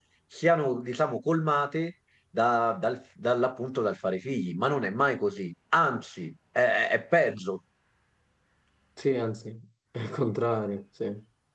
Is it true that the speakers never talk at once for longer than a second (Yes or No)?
Yes